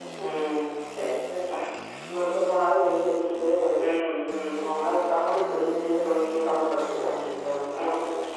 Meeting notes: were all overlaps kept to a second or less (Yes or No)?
Yes